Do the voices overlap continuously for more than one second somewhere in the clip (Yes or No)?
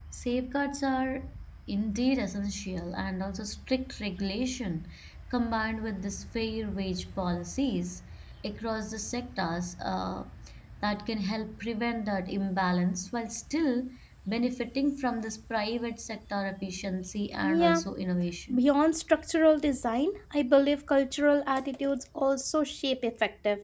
No